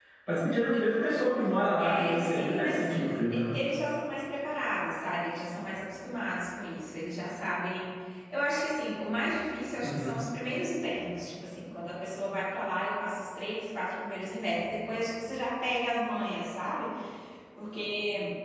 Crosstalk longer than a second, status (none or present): present